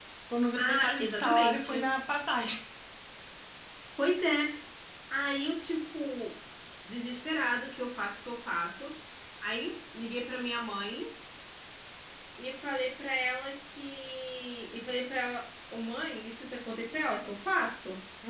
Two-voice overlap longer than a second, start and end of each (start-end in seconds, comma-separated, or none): 0.6-1.9